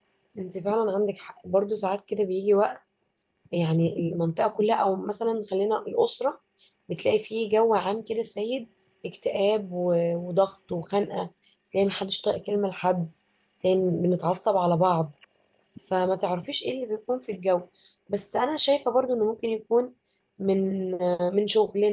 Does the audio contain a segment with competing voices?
No

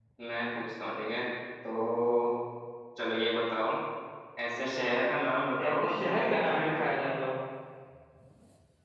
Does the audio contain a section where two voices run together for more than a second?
Yes, from 5.6 s

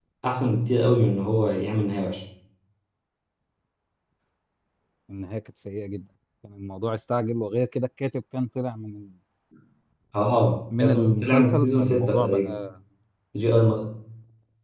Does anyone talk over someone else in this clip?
Yes, from 10.8 s

